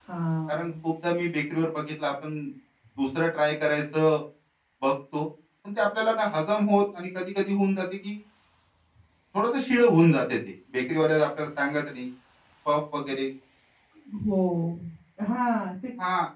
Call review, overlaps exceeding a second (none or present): none